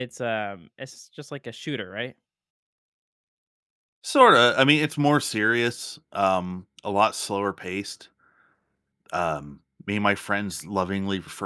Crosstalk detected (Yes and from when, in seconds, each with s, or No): No